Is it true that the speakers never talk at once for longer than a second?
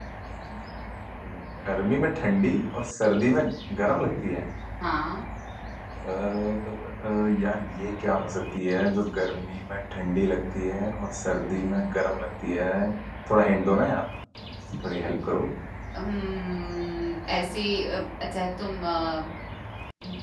Yes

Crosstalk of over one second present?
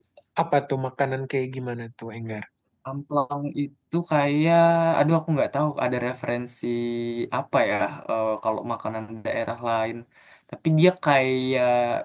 No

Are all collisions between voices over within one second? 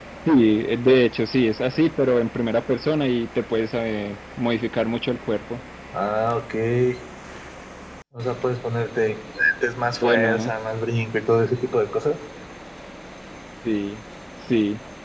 Yes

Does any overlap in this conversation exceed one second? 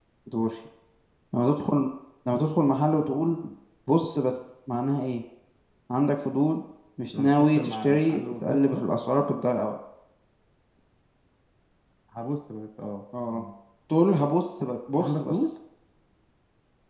Yes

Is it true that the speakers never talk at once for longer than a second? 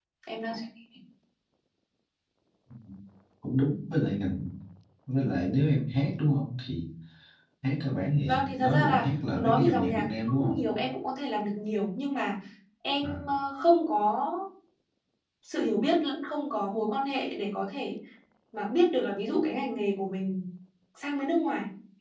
No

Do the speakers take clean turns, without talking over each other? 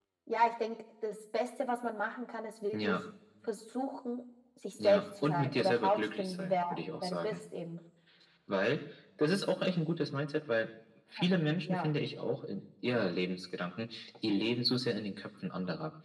No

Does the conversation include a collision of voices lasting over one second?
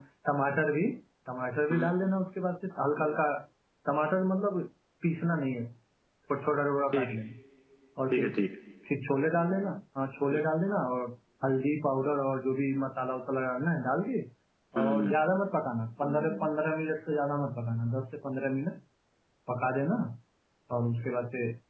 No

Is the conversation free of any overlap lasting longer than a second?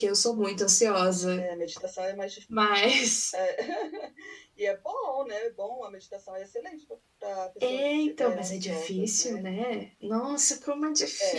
No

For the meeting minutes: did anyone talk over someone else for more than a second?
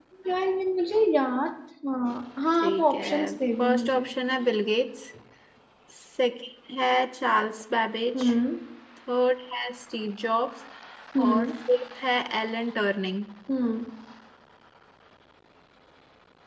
Yes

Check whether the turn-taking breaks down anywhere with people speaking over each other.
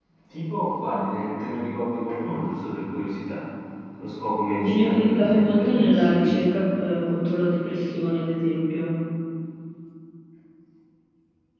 Yes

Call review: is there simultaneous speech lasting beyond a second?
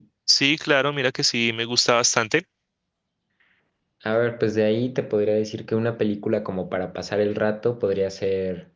No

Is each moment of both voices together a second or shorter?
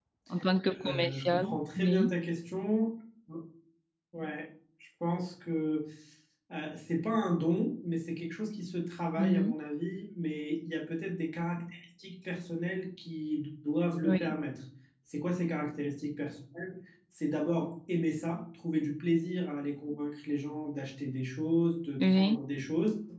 No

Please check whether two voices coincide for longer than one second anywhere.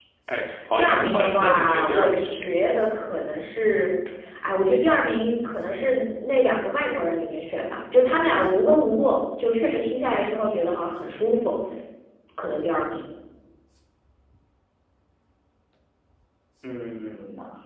Yes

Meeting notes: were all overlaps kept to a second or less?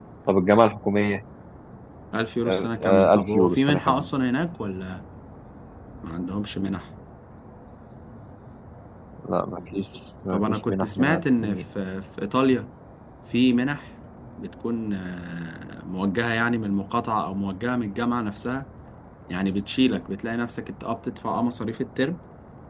No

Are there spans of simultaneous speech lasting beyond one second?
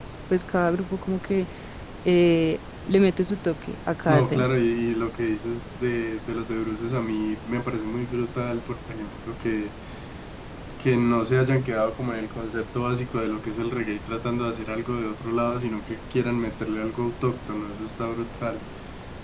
No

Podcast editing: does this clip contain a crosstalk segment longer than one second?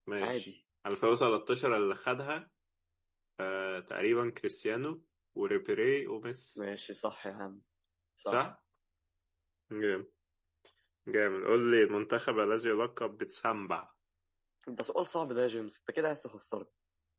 No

